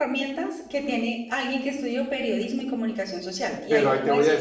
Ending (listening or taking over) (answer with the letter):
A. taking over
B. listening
A